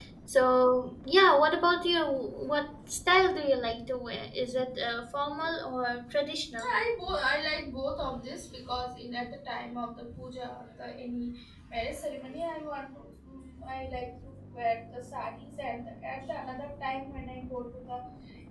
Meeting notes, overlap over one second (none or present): none